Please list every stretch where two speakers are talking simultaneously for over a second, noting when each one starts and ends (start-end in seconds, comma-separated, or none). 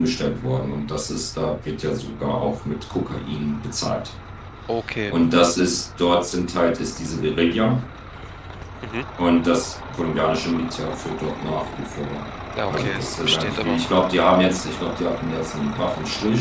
12.7-13.9